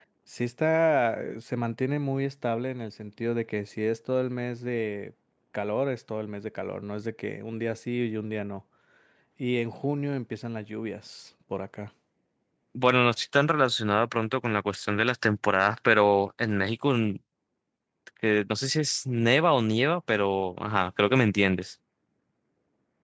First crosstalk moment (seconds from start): none

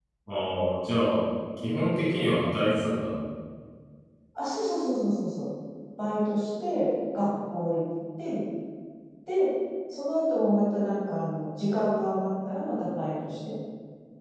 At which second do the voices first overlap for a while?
none

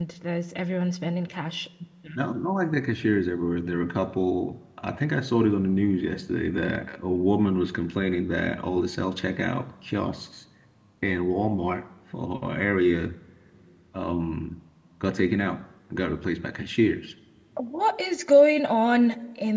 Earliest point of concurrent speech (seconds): none

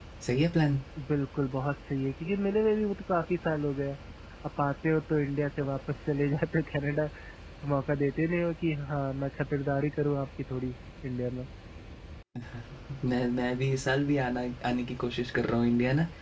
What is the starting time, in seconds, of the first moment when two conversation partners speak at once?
none

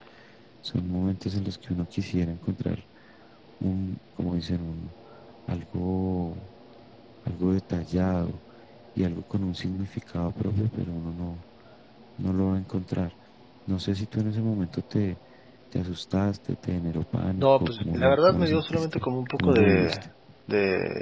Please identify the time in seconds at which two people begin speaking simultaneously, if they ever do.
17.4 s

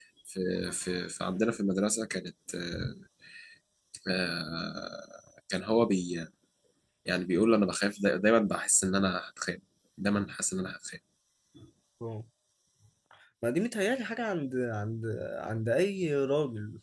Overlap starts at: none

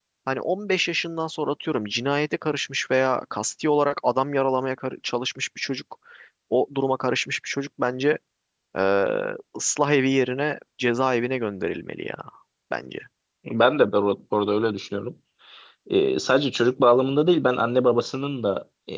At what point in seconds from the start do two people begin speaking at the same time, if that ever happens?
none

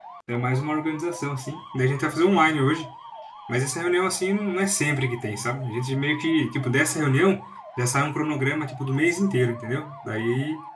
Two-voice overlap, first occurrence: none

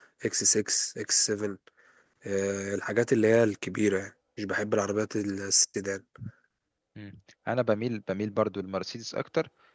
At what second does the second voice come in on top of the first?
none

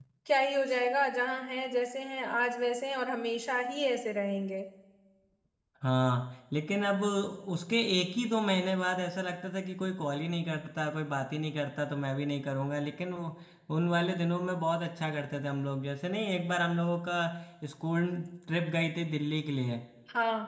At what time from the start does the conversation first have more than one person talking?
none

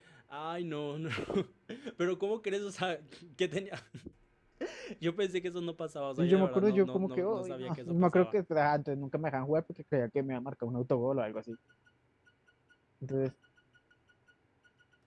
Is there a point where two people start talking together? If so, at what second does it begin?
6.2 s

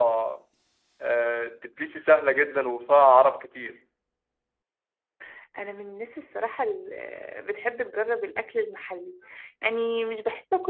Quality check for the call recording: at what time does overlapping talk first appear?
none

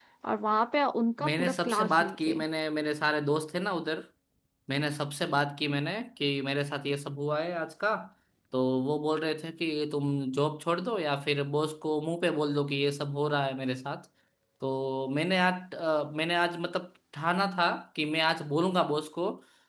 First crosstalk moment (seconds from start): 1.2 s

